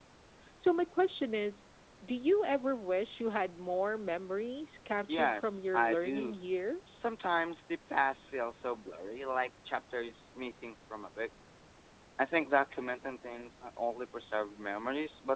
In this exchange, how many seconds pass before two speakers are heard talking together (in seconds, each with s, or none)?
5.1 s